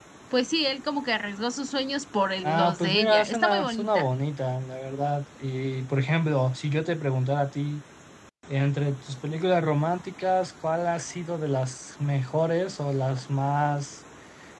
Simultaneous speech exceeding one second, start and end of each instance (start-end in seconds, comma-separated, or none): 2.4-4.1